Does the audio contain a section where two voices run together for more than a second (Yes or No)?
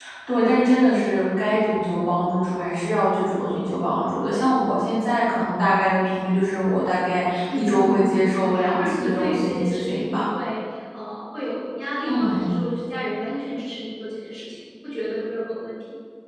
Yes